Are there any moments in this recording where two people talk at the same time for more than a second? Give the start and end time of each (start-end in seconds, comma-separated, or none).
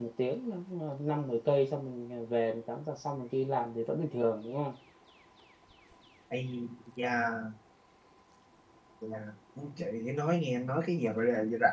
none